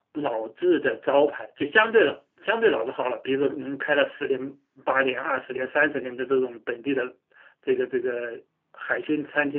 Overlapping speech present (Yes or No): No